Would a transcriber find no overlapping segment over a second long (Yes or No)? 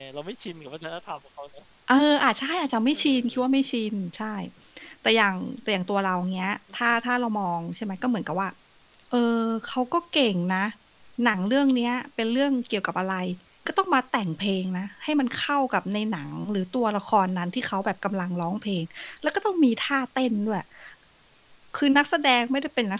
Yes